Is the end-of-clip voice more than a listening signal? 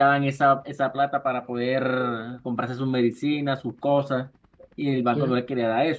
No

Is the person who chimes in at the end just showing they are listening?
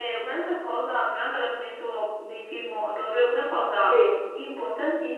Yes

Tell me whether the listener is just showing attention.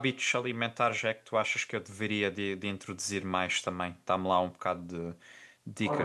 No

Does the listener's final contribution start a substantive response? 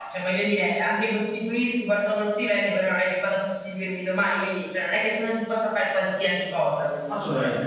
Yes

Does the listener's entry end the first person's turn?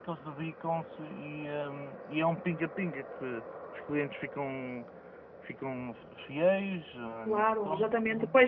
Yes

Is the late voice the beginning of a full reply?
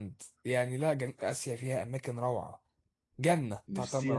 Yes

